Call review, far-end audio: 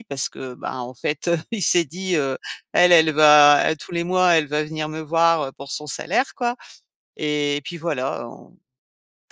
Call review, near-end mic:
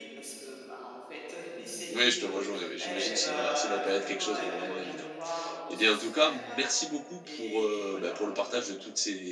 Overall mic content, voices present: both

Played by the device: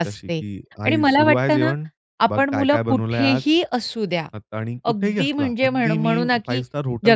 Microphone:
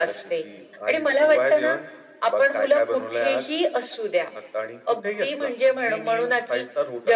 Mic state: echo only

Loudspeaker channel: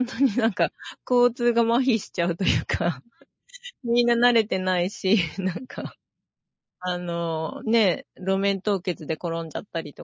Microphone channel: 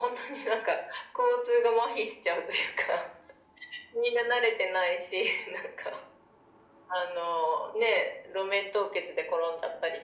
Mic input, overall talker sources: echo only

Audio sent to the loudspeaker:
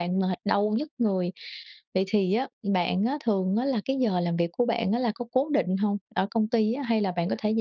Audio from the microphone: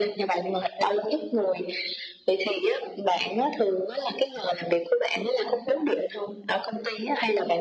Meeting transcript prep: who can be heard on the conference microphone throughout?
echo only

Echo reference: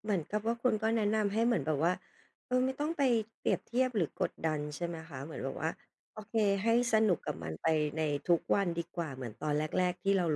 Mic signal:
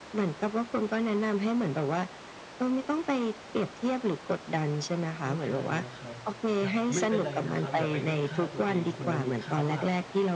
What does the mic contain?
both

